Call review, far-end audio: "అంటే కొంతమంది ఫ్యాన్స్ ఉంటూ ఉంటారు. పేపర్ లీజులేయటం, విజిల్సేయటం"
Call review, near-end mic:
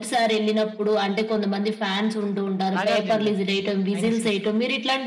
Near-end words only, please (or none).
నాగార్జున గారు. ఆయన సినిమా